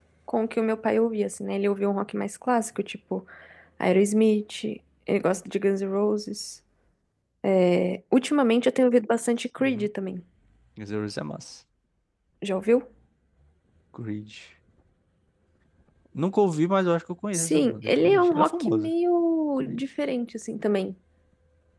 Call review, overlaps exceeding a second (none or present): present